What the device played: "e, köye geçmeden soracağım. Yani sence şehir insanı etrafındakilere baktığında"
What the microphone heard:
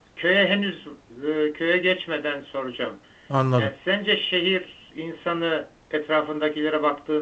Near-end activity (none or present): present